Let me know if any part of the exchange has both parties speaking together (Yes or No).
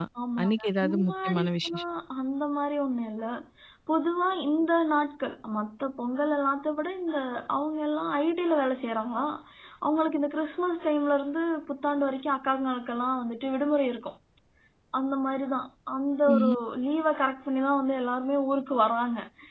Yes